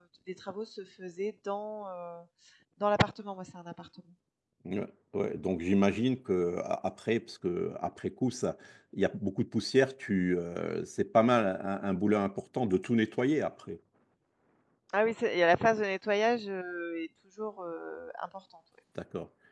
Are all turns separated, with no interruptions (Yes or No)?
Yes